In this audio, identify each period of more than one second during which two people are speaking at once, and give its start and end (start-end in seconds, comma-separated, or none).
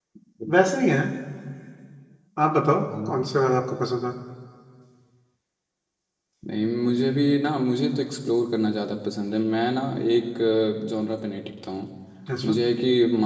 none